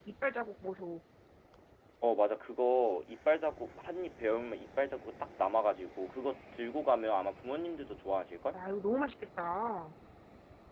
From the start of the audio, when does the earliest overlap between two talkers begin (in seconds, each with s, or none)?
none